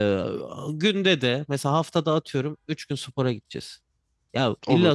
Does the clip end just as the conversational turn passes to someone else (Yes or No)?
No